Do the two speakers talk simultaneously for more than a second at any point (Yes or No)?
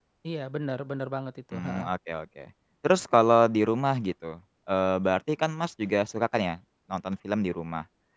No